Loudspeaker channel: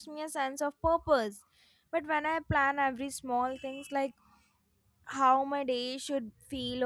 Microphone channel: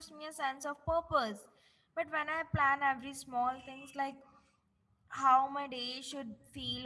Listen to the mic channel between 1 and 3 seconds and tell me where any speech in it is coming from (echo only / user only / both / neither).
echo only